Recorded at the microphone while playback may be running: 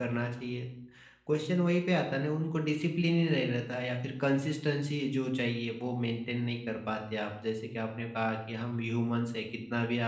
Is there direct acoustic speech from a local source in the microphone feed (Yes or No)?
Yes